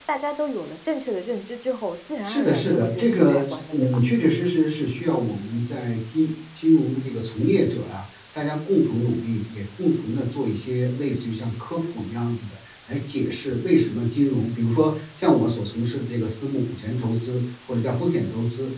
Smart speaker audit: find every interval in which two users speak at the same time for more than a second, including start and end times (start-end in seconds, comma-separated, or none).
2.2-4.0